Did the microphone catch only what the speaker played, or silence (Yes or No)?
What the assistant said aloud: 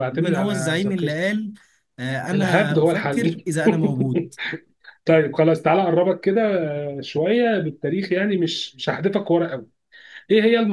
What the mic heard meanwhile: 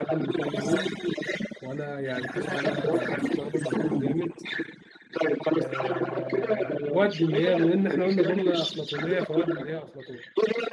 No